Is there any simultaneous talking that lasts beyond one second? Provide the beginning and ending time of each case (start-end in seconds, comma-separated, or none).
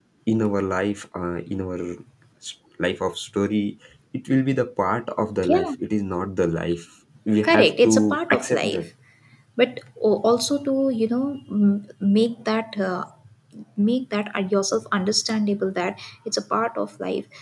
7.4-8.9